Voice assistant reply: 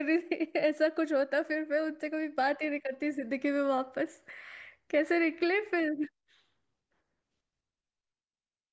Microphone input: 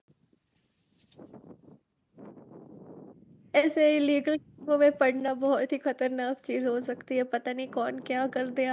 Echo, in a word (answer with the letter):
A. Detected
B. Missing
B